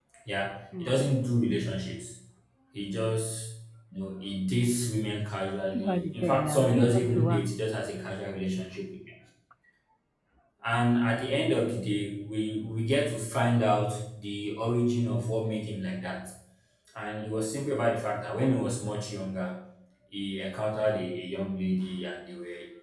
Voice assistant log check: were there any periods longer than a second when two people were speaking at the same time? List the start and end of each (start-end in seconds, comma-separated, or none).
5.7-7.5